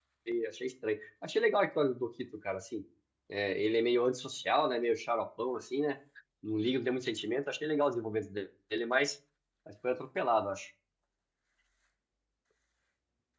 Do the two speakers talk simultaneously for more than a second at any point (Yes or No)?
No